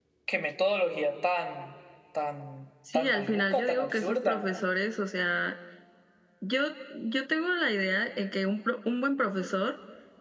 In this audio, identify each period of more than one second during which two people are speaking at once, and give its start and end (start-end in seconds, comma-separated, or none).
2.9-4.4